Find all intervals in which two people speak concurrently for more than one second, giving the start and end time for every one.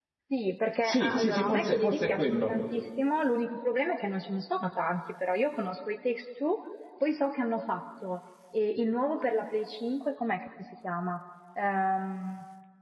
0.8-2.5

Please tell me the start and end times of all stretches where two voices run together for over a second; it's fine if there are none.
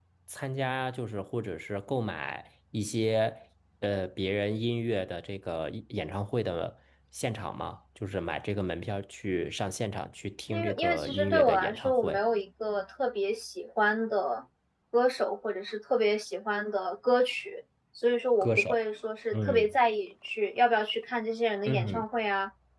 10.5-12.2

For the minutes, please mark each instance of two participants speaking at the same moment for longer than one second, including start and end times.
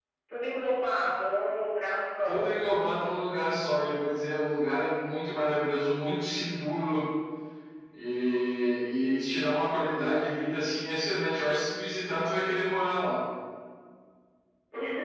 none

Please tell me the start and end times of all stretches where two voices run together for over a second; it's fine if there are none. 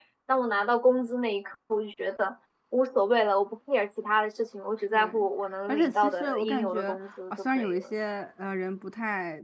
5.7-7.9

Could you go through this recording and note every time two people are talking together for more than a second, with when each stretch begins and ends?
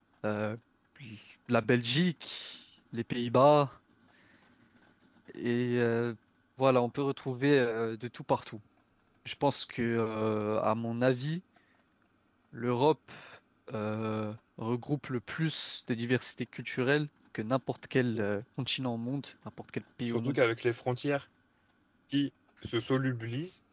none

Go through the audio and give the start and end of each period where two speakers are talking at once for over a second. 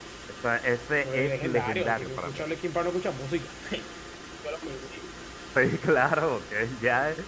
1.0-2.4

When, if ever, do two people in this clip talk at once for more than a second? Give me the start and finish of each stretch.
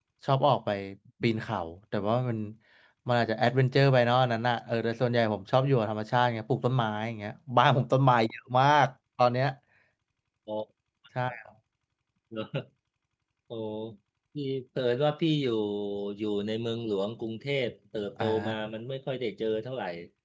none

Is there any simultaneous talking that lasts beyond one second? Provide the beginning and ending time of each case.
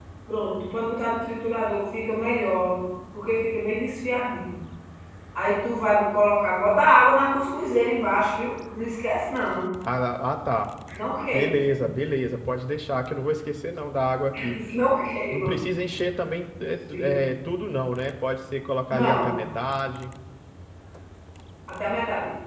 none

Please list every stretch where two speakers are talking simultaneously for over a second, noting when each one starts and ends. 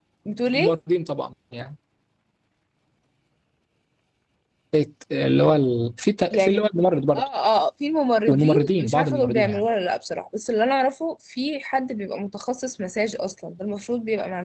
8.3-9.7

